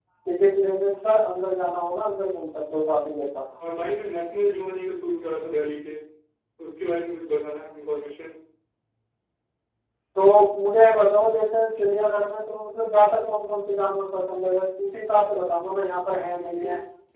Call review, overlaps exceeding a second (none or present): none